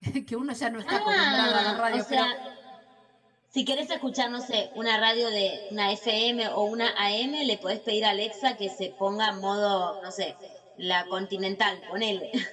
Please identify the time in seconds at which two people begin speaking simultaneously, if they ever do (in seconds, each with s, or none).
0.9 s